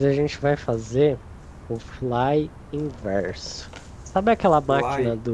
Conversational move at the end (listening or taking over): listening